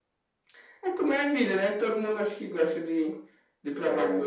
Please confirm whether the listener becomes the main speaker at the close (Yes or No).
Yes